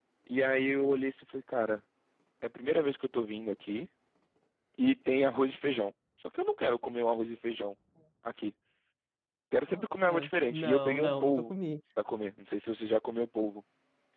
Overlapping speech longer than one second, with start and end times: 9.7-11.5

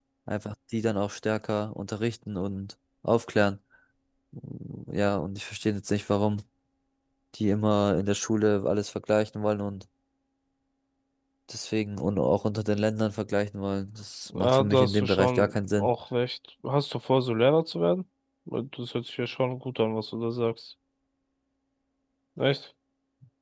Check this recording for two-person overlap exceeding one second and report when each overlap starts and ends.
14.3-15.9

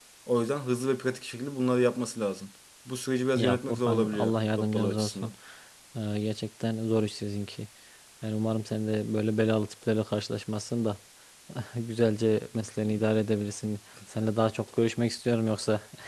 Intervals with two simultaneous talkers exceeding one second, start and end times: 3.4-5.3

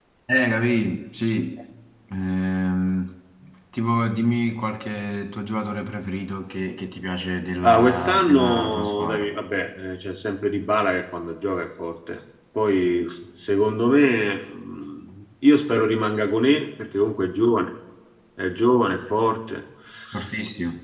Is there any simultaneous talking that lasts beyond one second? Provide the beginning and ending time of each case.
7.6-9.2

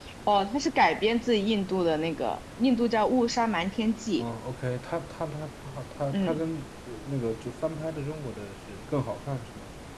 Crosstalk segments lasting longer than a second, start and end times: none

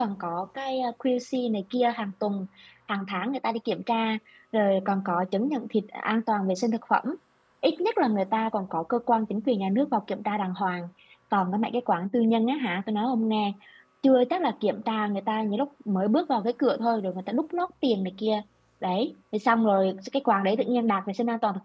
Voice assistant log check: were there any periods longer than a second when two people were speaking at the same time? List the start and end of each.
none

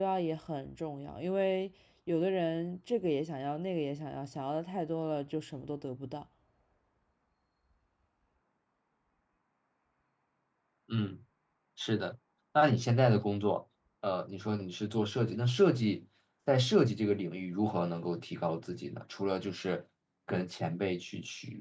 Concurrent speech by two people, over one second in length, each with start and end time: none

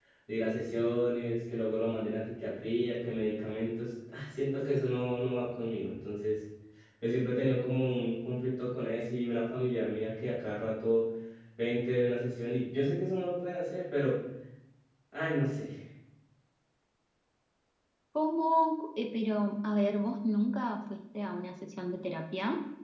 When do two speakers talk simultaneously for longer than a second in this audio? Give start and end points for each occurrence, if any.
none

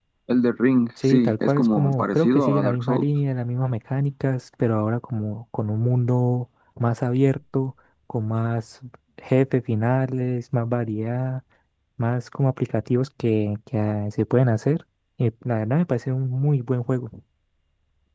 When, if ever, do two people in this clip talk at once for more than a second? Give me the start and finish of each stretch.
1.0-3.0

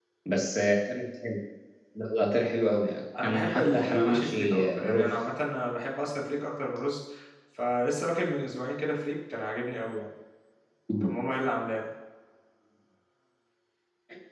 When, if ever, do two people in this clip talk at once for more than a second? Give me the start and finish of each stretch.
3.2-5.1

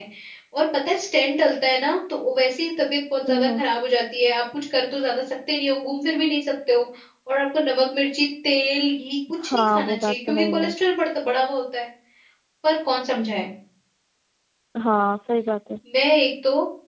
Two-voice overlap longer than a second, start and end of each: 9.4-10.7

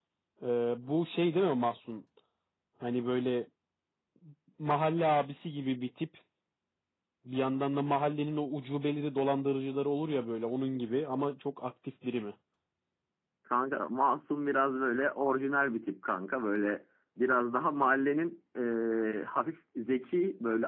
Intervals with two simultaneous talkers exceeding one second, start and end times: none

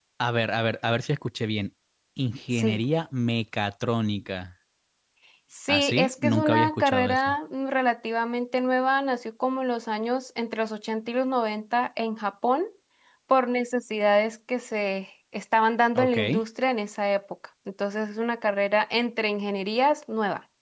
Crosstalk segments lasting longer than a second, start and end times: 5.7-7.4

